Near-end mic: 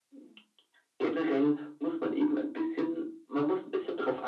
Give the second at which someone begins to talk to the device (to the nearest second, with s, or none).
none